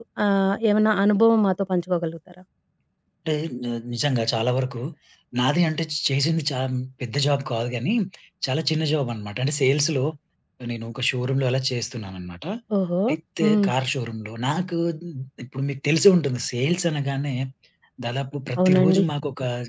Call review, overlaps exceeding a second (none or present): none